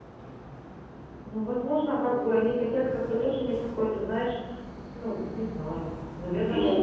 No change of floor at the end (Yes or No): Yes